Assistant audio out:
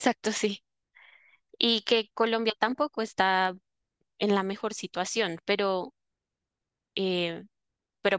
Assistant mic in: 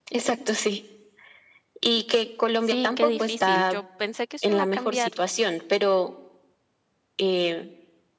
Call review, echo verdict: present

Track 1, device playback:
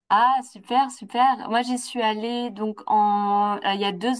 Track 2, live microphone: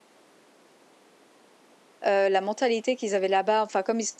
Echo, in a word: none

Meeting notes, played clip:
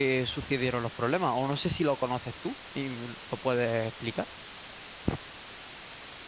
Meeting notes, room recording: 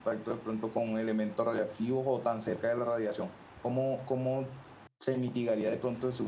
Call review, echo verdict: none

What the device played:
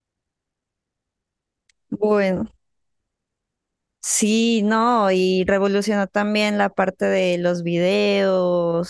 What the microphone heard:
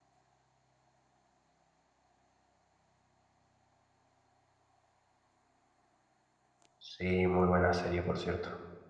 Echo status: none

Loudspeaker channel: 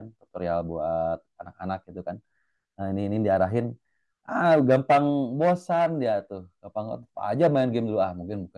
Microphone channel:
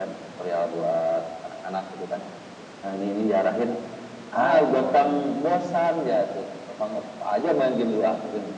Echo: present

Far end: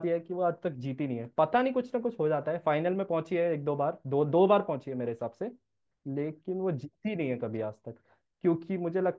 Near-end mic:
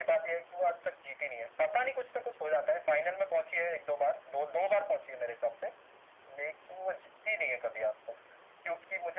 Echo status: present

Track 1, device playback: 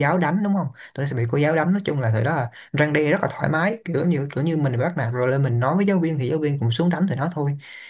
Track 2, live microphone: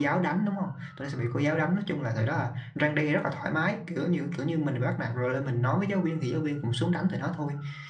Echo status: present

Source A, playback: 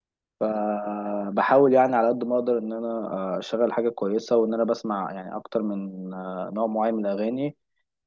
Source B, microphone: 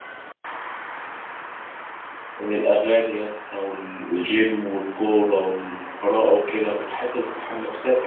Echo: none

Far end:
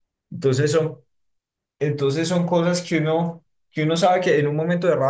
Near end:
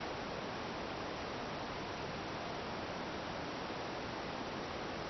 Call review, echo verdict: none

